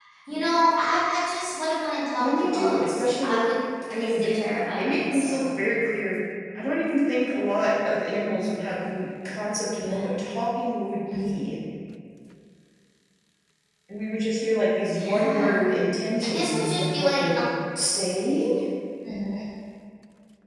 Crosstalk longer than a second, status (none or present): present